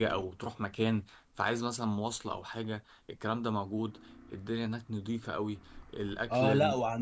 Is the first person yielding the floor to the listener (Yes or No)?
Yes